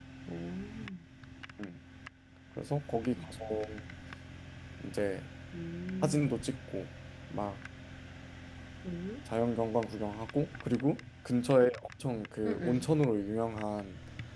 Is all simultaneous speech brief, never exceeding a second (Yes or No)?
Yes